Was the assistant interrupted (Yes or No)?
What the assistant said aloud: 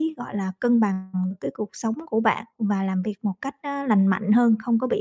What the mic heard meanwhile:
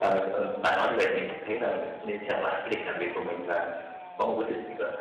Yes